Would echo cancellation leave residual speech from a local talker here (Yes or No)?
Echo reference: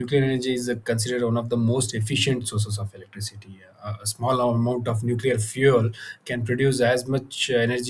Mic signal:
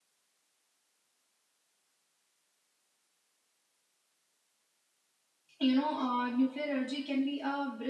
Yes